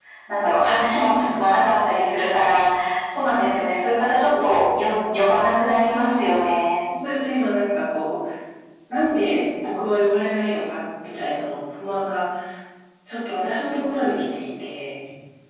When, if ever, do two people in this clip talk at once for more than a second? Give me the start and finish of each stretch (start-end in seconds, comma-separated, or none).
4.3-6.3